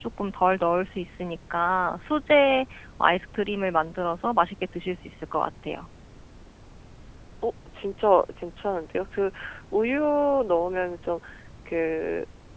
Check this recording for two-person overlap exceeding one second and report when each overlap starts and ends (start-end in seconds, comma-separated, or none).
none